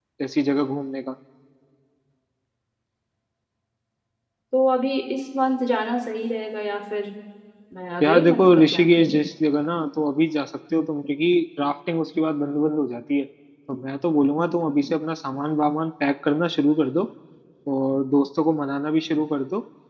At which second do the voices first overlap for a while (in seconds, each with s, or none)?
8.0 s